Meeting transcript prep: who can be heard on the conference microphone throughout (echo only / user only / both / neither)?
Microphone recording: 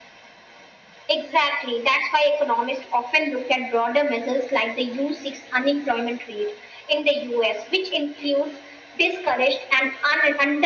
echo only